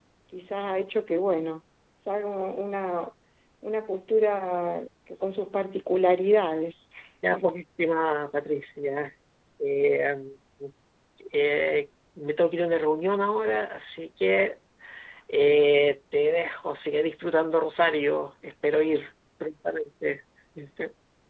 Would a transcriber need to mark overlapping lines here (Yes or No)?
No